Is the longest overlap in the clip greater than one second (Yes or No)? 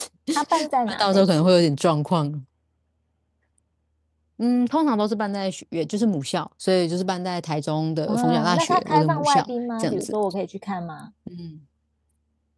Yes